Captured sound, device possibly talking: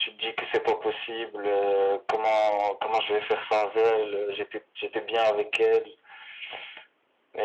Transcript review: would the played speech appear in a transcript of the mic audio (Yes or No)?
Yes